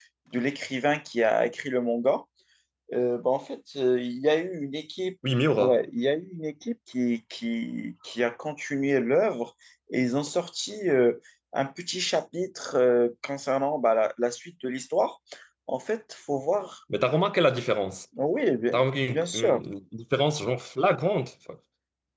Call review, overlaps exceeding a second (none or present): none